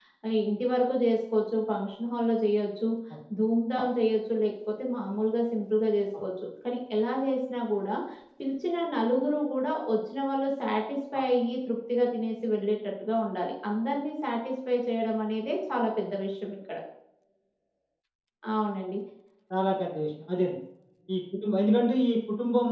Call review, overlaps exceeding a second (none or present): none